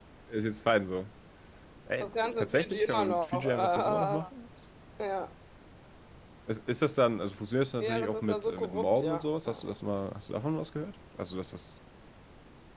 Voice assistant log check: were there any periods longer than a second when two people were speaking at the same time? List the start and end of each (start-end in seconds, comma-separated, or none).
2.0-4.2, 7.8-9.7